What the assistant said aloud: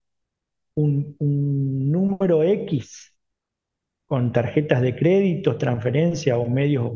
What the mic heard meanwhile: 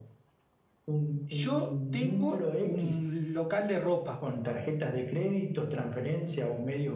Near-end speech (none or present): present